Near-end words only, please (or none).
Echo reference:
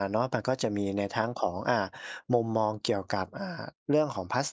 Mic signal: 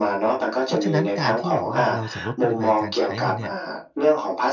เพราะฉะนั้นการที่แบบว่าเราจะลดปริมาณการใช้มันเนี่ย